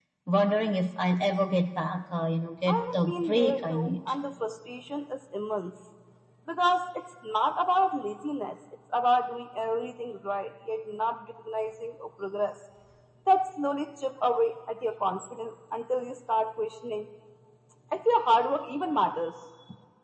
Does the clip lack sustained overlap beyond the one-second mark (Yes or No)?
No